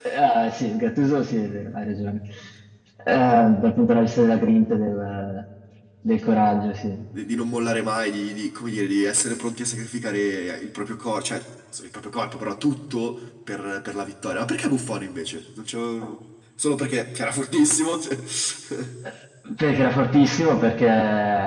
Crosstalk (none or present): none